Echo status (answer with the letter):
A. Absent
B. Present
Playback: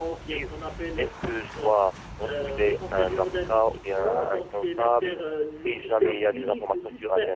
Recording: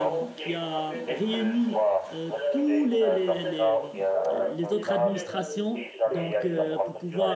B